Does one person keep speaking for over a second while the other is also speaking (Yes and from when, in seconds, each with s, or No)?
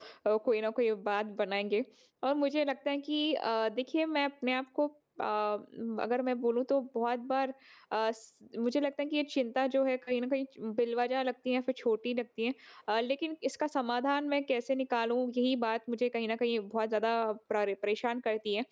No